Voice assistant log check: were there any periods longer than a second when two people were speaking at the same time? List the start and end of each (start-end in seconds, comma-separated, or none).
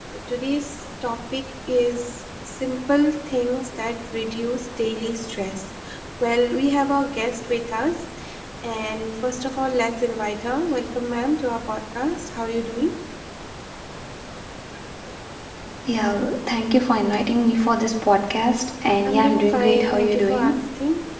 19.0-20.6